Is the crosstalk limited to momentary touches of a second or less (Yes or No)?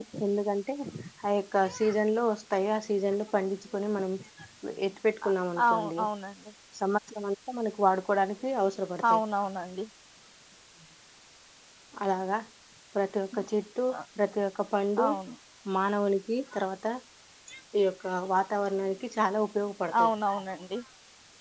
Yes